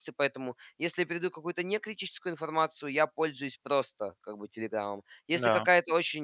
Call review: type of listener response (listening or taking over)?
listening